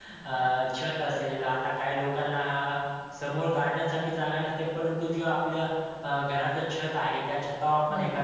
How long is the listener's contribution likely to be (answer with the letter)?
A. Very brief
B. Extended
A